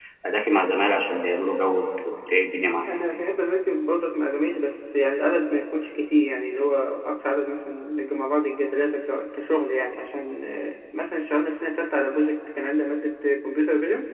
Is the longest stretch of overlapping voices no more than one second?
Yes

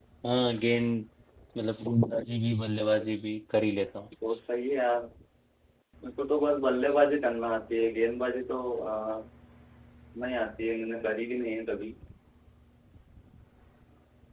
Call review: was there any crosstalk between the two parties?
No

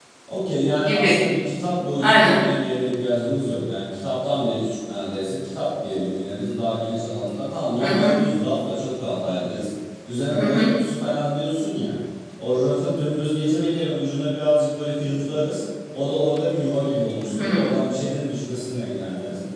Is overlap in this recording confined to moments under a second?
Yes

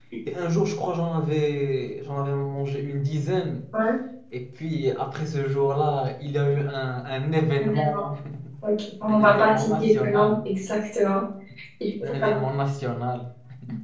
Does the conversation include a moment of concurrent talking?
Yes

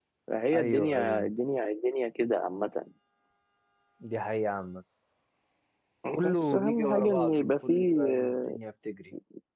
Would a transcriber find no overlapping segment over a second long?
No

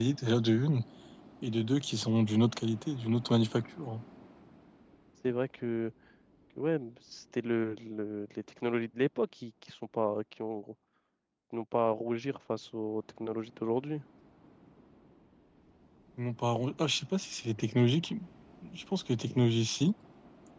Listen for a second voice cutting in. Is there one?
No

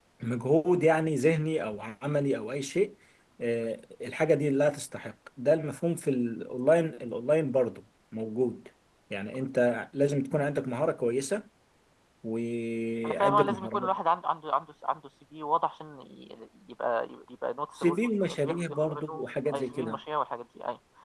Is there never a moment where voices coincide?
No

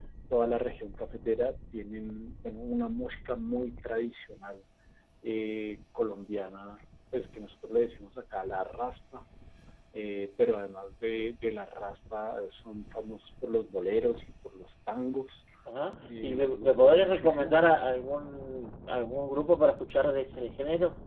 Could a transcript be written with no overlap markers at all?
No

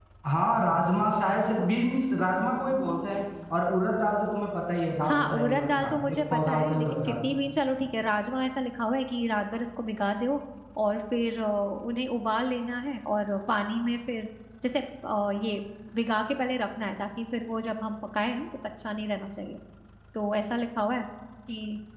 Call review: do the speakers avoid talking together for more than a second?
No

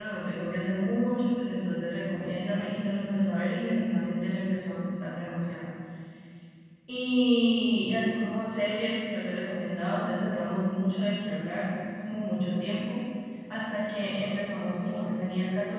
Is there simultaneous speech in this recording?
No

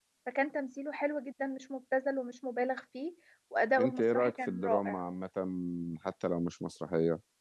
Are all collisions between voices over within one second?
No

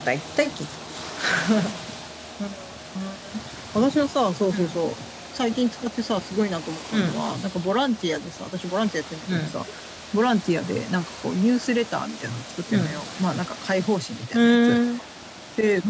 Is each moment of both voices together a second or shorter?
Yes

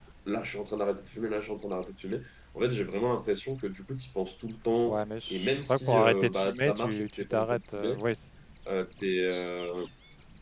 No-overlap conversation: No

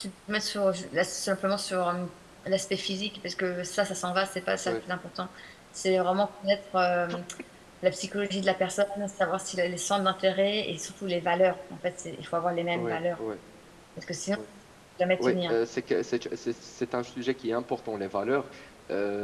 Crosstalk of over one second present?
No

